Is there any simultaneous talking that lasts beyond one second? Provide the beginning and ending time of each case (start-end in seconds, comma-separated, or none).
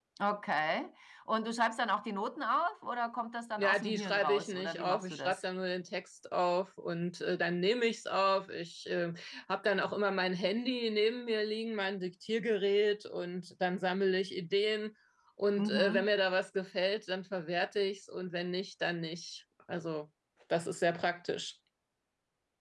3.6-5.4